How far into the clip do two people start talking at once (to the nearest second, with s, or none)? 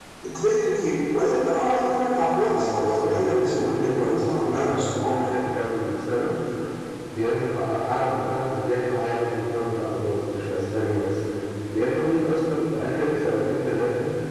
2 s